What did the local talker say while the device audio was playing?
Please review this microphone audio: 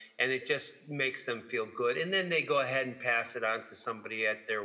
none

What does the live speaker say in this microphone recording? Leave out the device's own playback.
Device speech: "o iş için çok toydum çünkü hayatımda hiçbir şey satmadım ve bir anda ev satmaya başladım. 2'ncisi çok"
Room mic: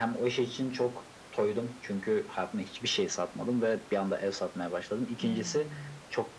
Hıı.

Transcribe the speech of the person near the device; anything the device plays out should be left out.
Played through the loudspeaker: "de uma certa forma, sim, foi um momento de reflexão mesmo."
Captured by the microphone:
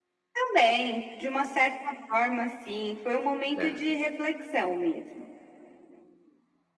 Certo.

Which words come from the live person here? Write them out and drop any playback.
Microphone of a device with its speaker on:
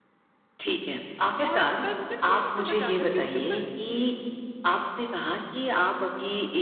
और पर मुझे ना, वो नहीं समझ आता कि उसके ऊपर

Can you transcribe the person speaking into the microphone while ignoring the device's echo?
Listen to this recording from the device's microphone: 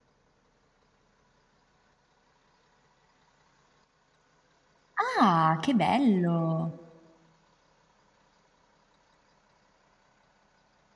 Ah, che bello.

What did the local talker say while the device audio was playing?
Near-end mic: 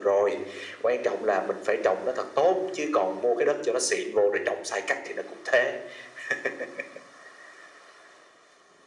none

